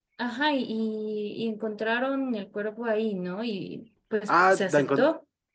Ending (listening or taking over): taking over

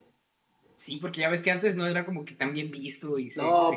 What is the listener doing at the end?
taking over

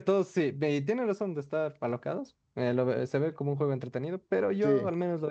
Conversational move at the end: listening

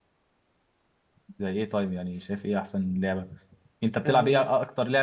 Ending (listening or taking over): listening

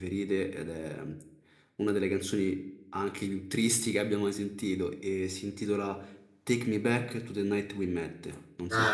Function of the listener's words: taking over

